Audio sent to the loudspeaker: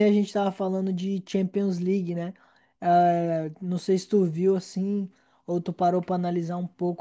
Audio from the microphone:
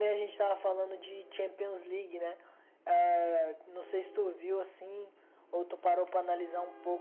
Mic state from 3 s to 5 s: echo only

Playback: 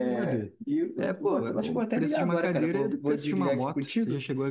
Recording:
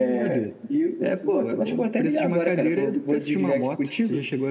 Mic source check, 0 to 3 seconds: echo only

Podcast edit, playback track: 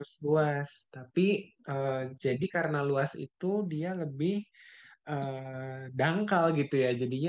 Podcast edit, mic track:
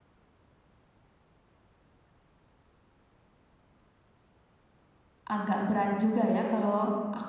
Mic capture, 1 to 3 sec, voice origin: neither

